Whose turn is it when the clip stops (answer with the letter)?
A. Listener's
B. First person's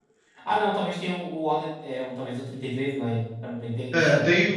A